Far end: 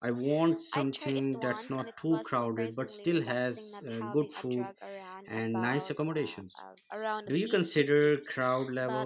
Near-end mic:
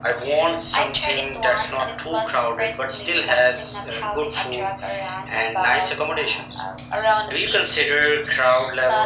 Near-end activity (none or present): none